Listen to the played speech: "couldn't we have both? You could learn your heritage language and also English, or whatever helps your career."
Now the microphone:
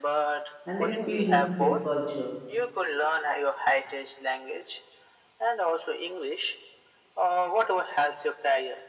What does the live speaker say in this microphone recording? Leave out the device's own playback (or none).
and experience their culture.